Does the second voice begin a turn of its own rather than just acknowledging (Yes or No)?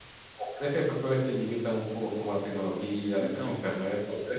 No